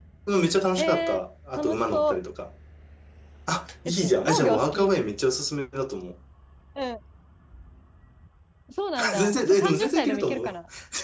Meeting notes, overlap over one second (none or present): present